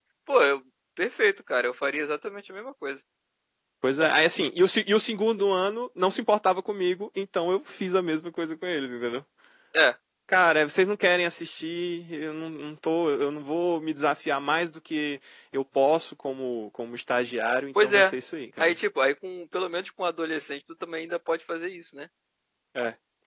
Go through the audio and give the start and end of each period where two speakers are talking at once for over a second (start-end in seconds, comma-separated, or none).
none